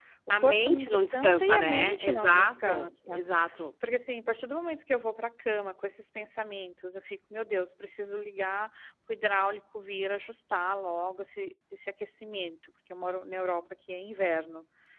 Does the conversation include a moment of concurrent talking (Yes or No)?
Yes